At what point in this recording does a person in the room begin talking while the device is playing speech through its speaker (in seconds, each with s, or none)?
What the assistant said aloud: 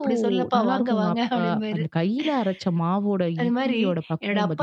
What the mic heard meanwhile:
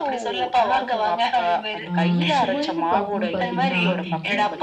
1.9 s